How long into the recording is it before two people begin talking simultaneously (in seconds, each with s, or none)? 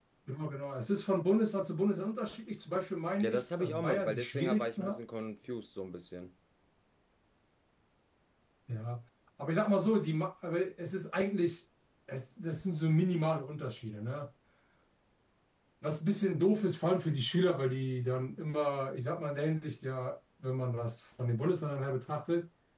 3.2 s